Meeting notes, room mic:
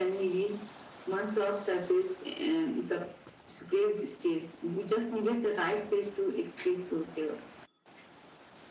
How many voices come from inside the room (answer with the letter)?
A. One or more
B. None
B